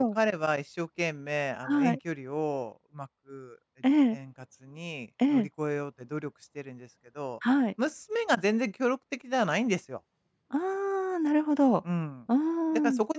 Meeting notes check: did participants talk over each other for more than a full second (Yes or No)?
No